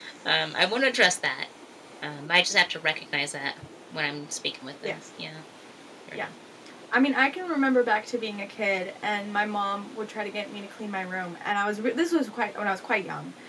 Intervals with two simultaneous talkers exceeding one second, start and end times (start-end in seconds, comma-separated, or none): none